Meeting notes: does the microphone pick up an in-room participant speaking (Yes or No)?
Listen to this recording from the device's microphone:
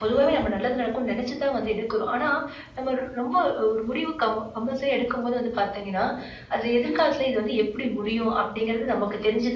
No